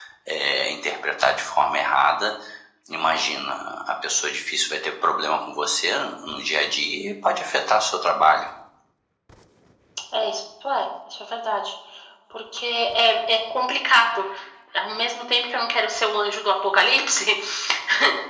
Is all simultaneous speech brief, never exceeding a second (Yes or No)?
Yes